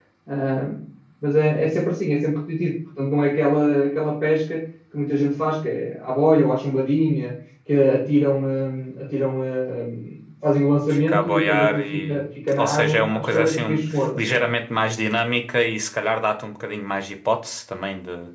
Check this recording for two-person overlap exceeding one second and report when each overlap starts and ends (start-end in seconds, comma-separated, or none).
10.9-14.4